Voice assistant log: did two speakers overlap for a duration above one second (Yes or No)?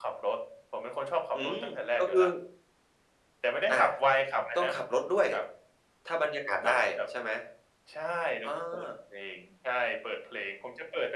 No